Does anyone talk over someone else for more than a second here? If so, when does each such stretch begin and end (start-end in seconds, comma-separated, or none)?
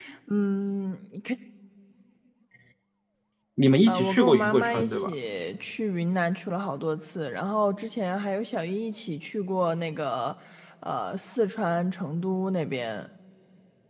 3.9-5.1